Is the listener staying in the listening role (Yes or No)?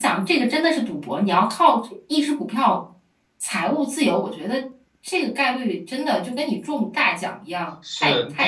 No